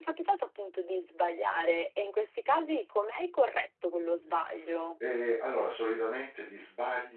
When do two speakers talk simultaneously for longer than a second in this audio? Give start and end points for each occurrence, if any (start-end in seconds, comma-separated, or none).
none